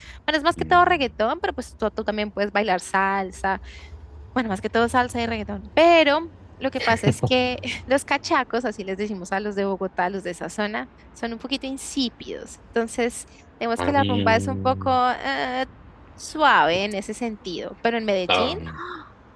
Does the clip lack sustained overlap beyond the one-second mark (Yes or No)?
No